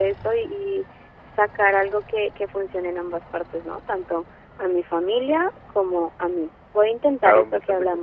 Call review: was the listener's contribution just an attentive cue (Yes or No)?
No